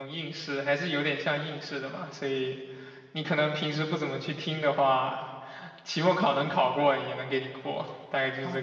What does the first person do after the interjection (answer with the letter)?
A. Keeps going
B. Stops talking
B